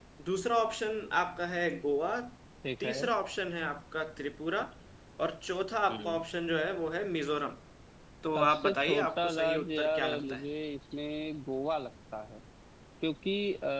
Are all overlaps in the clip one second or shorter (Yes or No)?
No